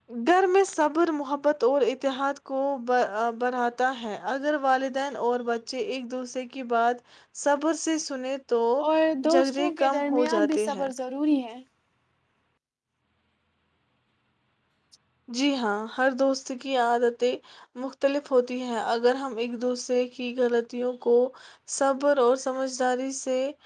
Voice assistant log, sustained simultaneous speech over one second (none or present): present